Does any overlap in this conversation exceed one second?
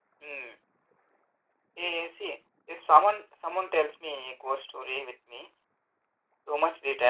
No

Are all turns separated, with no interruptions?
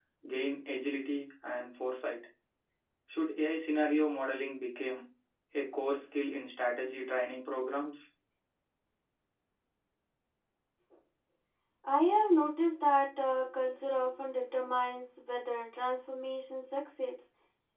Yes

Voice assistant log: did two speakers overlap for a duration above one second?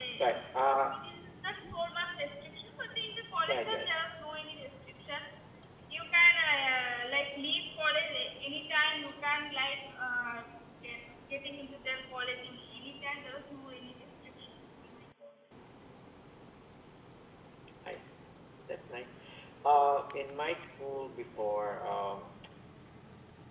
No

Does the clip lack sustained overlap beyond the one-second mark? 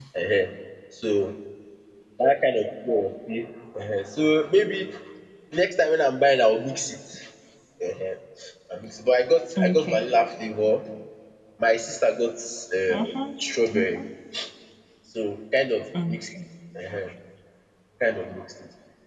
Yes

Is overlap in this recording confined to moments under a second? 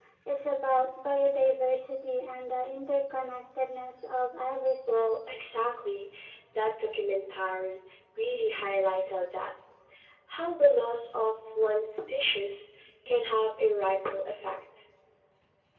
Yes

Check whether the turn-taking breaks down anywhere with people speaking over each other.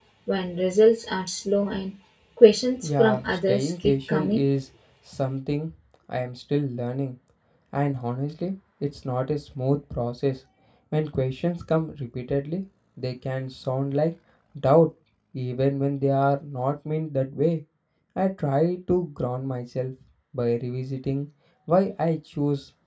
Yes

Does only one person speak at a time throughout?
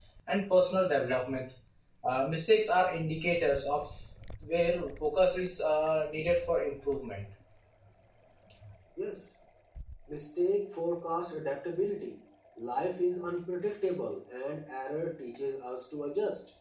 Yes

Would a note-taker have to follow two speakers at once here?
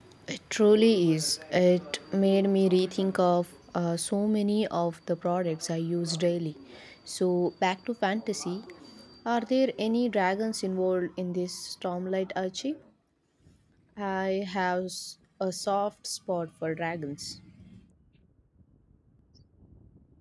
No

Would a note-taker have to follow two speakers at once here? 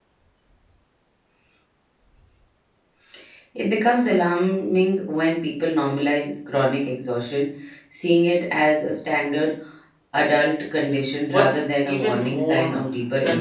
Yes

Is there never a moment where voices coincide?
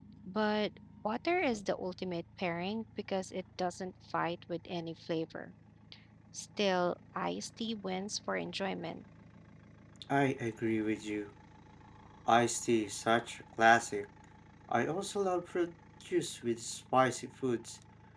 Yes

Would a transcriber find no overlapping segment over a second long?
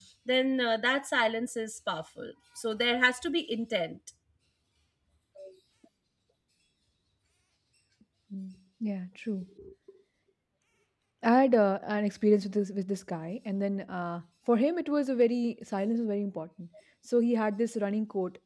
Yes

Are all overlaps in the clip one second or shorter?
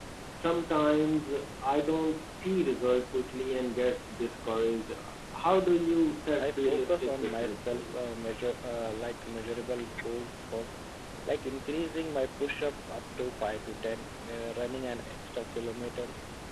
No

